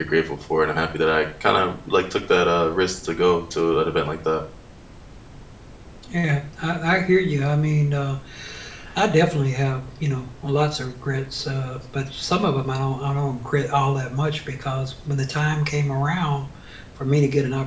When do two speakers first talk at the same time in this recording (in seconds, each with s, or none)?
none